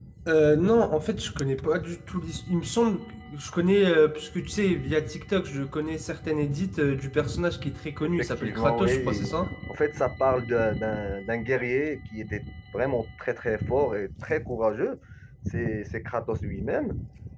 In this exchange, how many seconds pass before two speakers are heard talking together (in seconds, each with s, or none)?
8.0 s